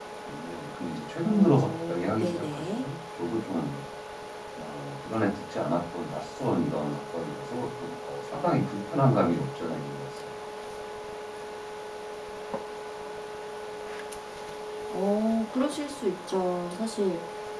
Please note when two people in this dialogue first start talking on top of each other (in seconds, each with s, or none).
1.3 s